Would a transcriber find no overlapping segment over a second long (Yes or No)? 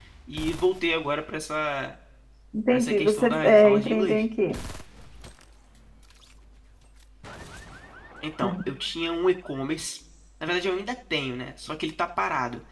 No